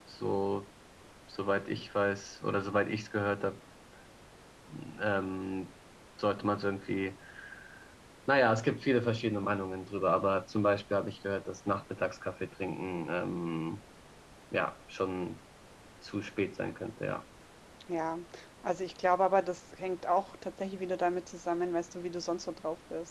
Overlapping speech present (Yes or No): No